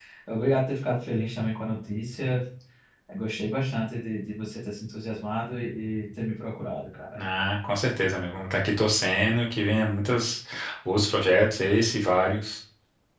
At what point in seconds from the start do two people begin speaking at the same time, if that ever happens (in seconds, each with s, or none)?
none